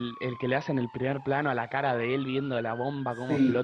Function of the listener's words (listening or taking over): taking over